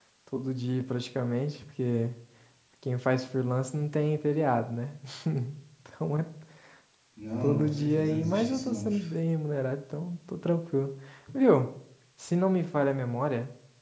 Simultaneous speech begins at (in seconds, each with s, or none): 7.4 s